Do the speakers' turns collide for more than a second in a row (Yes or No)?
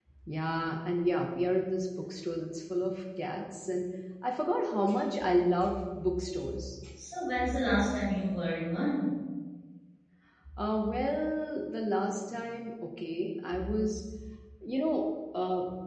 No